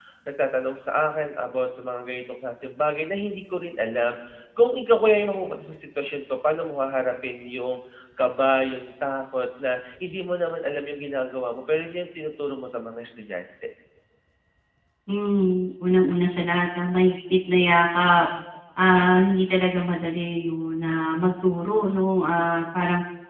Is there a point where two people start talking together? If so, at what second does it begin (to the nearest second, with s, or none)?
none